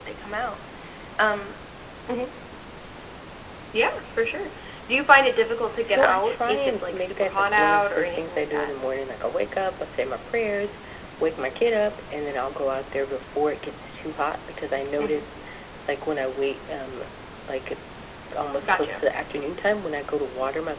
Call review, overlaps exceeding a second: present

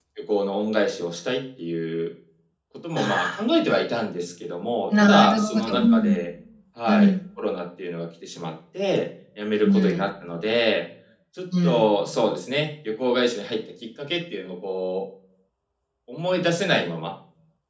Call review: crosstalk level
present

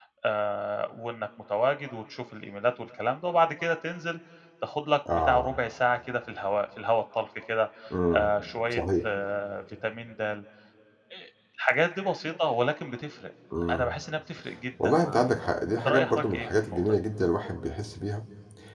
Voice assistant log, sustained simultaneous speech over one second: present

